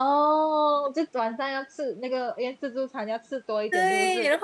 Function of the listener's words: taking over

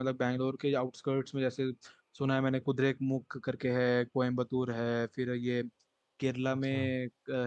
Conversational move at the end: listening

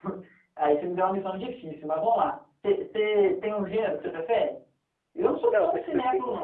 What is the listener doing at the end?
taking over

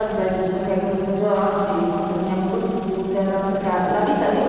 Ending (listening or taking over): listening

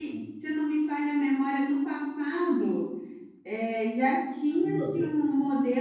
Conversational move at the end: listening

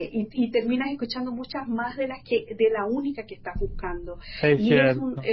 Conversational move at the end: listening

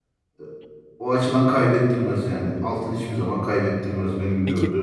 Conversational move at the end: taking over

